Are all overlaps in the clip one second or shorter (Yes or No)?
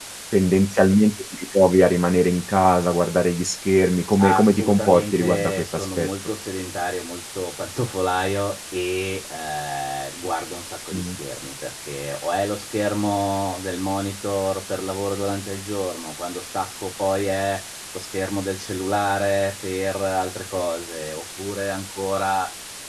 No